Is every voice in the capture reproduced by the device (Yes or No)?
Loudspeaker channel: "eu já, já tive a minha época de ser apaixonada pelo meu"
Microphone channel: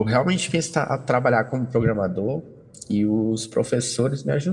No